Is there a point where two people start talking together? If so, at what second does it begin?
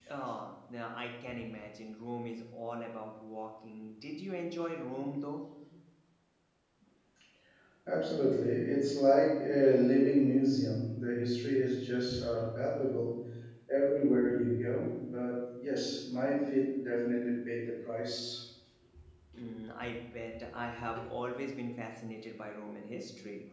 none

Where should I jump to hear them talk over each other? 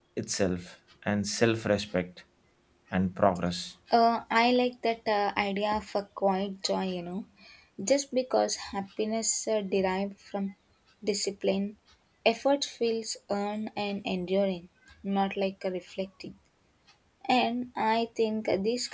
none

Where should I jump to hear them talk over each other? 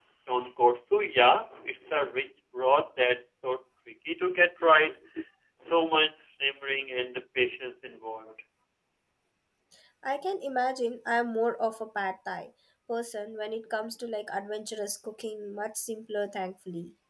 none

